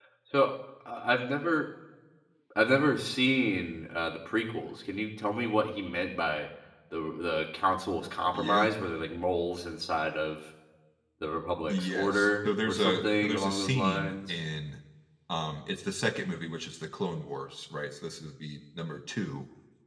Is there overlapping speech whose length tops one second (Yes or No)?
Yes